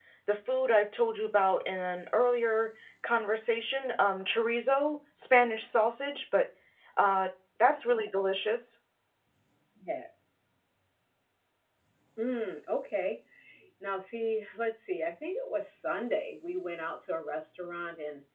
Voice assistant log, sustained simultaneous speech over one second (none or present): none